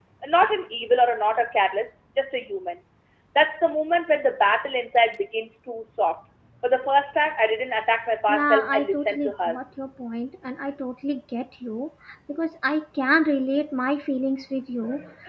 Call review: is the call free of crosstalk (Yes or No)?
No